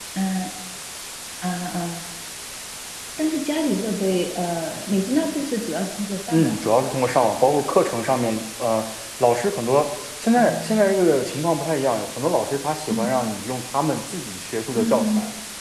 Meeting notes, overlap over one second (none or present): present